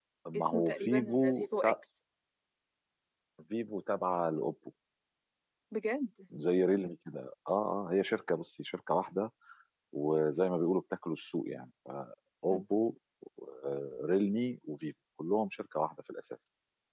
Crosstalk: present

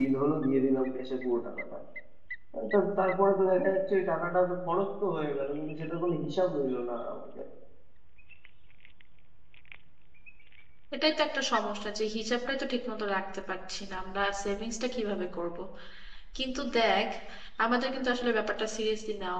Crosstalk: none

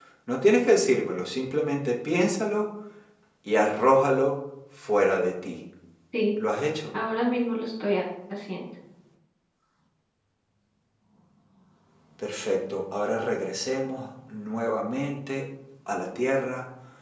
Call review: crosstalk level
none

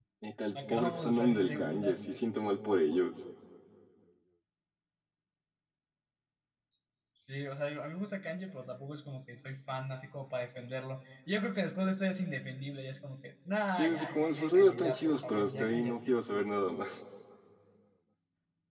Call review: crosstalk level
present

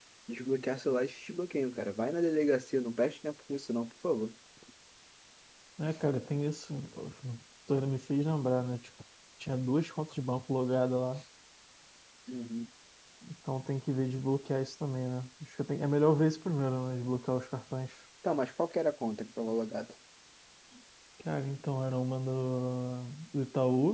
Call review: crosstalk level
none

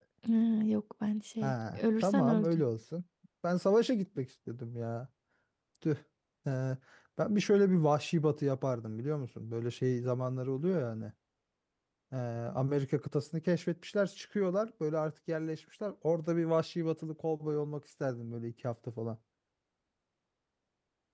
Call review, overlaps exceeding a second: present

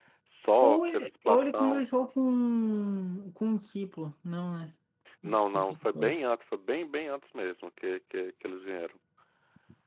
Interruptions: present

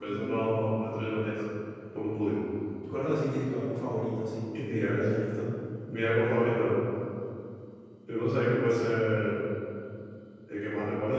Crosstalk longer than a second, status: none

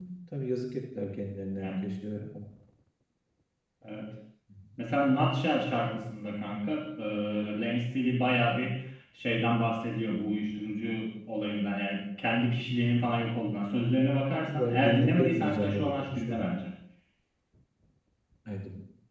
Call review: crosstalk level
present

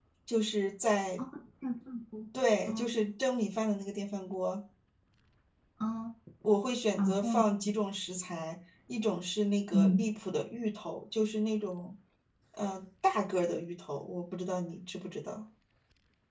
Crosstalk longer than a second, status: none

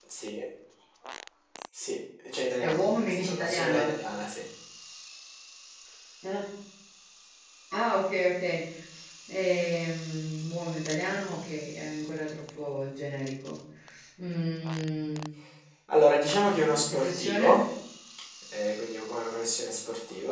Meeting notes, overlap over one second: present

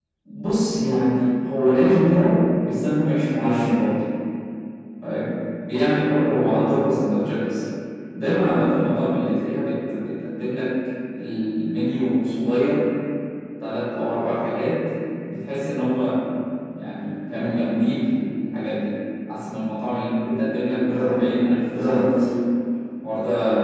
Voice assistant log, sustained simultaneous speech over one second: none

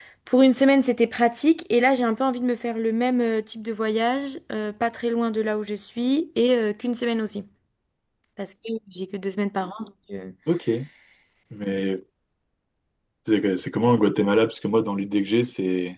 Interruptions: none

